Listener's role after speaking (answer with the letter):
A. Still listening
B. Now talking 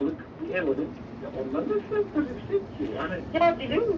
B